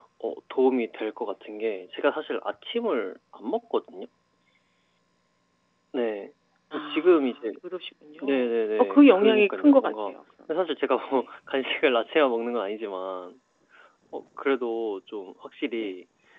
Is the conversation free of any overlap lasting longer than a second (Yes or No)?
No